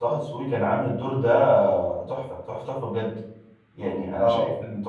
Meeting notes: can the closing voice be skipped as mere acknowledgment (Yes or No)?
Yes